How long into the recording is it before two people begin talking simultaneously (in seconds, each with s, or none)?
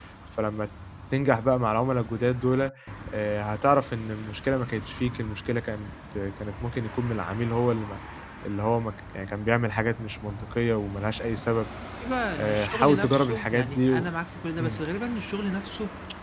12.3 s